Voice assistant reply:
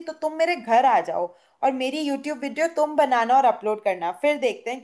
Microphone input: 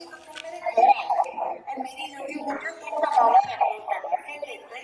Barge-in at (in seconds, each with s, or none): none